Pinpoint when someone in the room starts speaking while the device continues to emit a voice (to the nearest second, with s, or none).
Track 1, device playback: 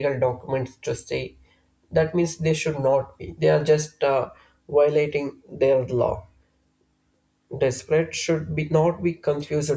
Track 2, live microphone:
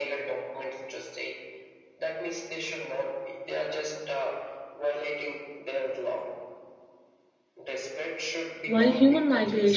9 s